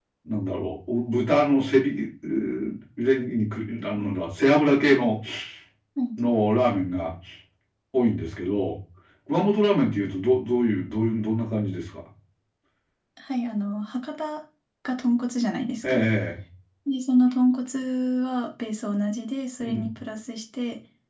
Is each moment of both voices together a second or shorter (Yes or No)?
Yes